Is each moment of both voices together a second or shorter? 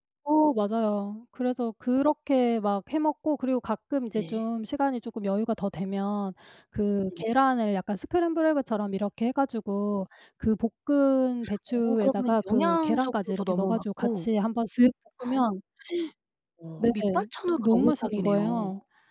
No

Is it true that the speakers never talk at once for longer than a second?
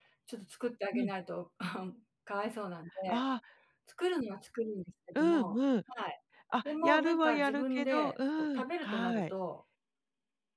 No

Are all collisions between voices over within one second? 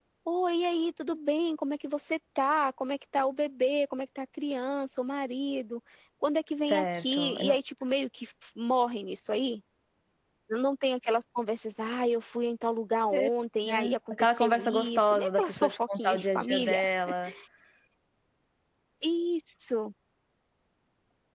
No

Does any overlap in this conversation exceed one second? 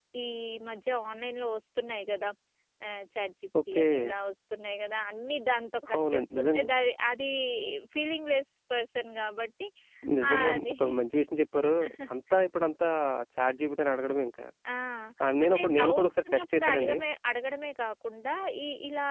Yes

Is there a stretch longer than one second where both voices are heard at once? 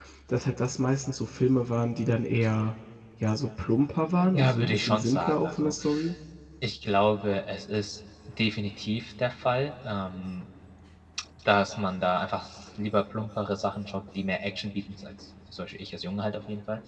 Yes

